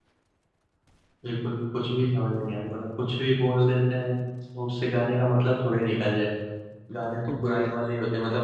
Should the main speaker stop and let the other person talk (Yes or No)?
No